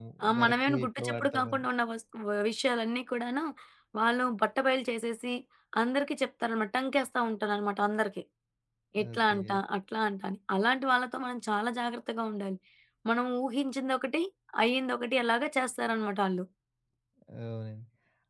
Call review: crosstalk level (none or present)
present